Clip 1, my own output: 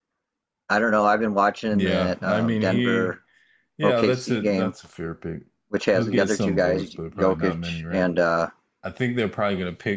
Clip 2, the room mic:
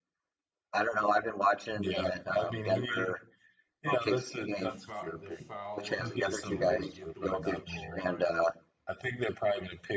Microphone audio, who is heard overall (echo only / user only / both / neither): both